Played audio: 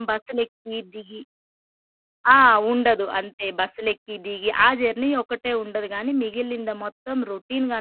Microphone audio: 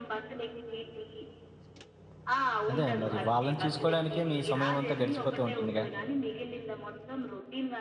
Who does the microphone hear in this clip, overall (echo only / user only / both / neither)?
both